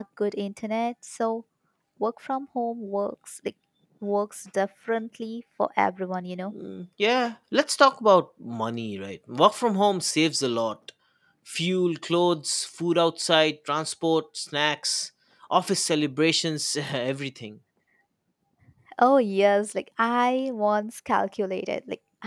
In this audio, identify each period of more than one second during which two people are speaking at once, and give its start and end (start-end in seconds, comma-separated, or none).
none